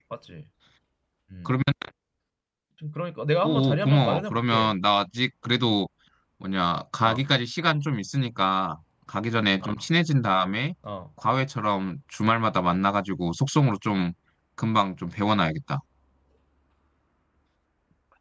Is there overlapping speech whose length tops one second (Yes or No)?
Yes